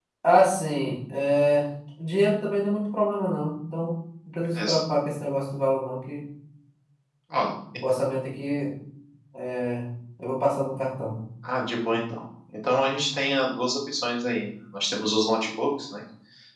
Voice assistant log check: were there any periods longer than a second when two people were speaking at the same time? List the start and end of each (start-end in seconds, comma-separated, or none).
none